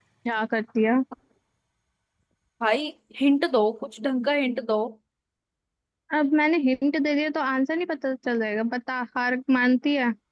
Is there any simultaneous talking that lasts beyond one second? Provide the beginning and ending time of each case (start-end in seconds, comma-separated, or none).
none